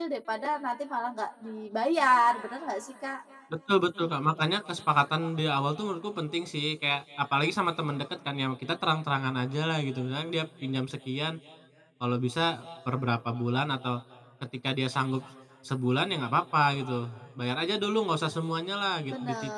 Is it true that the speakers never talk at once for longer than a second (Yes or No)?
Yes